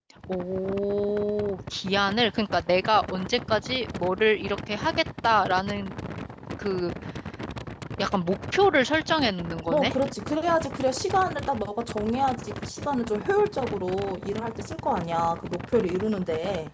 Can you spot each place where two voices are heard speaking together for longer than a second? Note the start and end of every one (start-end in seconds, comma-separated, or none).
none